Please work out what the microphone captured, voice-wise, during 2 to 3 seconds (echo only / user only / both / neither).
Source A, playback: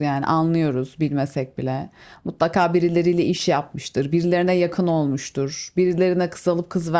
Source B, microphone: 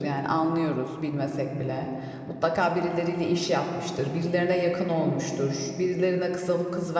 echo only